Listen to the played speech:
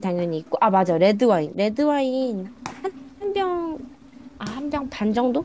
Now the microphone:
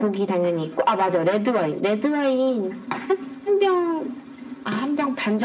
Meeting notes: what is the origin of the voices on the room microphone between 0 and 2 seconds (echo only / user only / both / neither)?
echo only